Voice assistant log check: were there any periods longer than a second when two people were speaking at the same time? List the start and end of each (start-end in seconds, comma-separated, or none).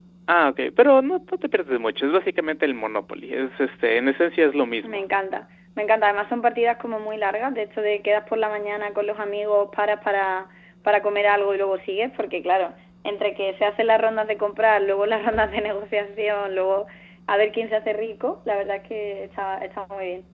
none